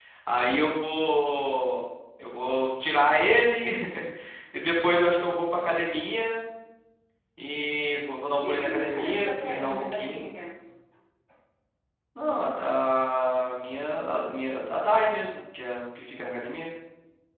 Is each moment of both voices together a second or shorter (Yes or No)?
No